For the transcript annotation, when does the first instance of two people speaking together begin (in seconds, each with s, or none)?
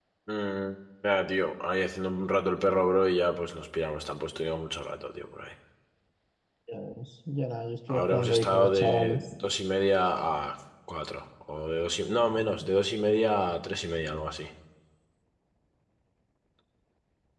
7.9 s